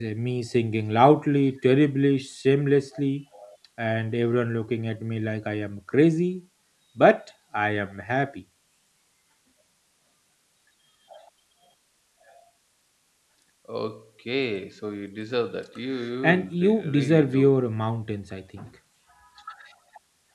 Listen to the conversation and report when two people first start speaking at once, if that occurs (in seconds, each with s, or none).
16.2 s